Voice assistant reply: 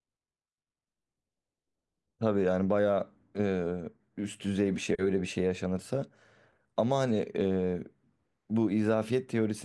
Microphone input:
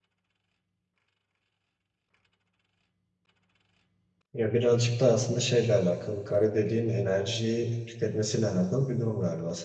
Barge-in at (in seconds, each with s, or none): 4.3 s